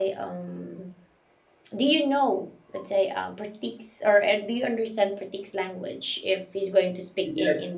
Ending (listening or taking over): taking over